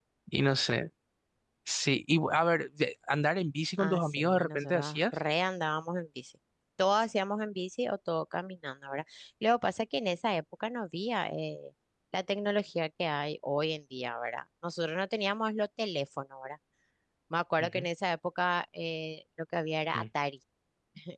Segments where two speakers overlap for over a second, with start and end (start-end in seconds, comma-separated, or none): 3.8-5.0